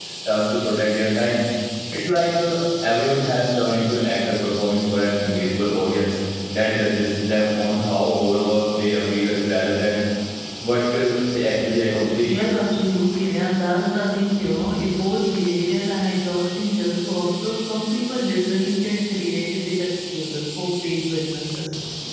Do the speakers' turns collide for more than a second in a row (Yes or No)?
No